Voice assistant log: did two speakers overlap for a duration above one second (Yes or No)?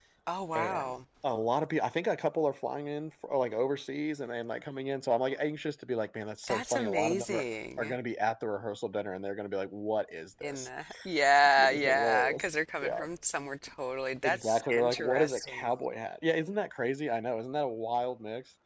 Yes